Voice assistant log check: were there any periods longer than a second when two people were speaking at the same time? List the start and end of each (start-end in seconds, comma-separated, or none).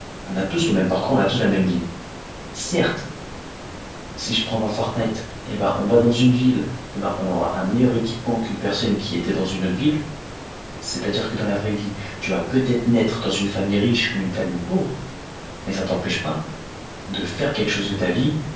none